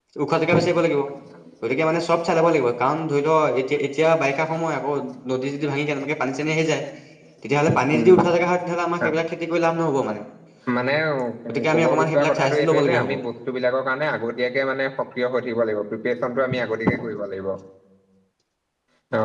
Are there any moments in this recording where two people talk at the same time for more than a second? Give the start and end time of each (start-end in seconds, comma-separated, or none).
11.7-13.0